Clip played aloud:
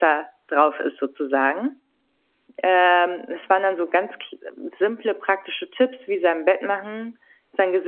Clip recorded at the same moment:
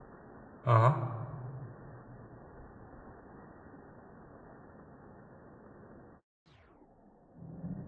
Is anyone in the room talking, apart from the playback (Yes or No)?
Yes